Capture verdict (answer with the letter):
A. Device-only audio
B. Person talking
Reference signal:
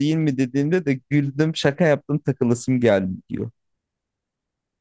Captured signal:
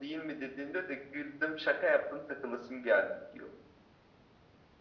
A